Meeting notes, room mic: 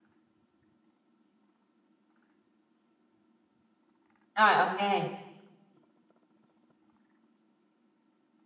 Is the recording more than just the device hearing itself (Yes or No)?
Yes